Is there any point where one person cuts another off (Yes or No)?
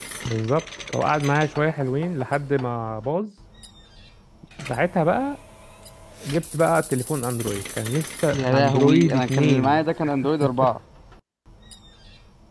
Yes